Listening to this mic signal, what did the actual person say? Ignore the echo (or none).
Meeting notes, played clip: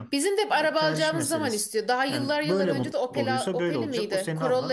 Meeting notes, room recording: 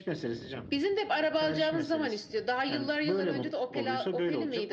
none